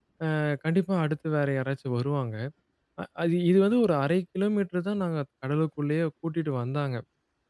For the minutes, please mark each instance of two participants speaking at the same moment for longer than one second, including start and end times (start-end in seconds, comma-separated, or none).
none